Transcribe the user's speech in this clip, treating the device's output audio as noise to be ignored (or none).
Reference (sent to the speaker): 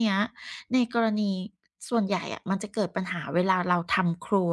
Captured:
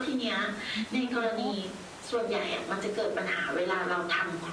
อันนี้เราก็